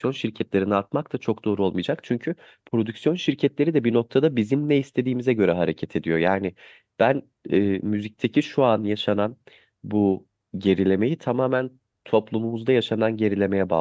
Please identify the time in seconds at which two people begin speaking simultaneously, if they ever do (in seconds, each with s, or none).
none